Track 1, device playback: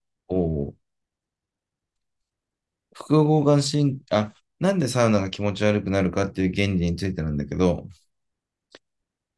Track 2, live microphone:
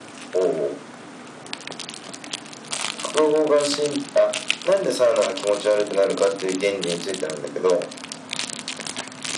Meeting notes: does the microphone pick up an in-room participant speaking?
No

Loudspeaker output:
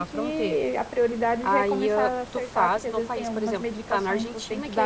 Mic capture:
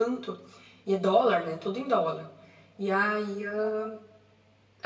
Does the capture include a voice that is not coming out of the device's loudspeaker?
Yes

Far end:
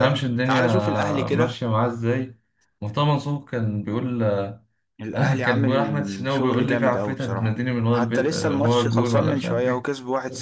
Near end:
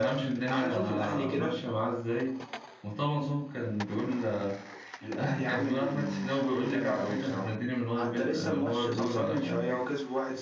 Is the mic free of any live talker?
Yes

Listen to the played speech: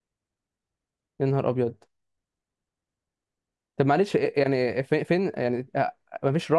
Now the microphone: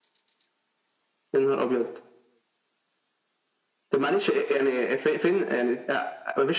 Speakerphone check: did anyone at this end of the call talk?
No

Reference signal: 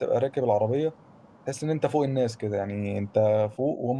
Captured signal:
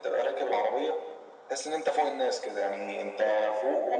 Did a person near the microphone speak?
No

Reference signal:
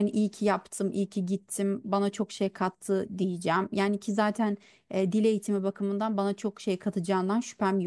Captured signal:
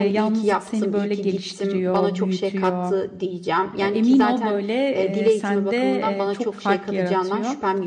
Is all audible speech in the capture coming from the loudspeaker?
No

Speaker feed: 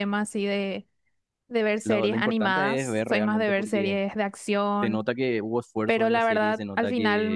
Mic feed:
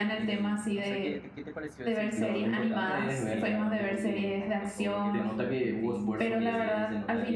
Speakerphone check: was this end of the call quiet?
No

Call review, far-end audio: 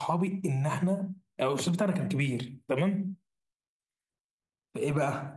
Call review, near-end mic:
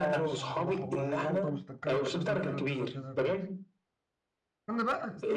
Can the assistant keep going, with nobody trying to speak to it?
No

